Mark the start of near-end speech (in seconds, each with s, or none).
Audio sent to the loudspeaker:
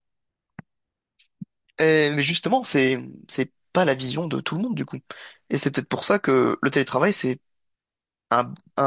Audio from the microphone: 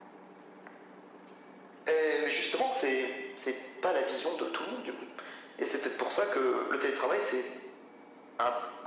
none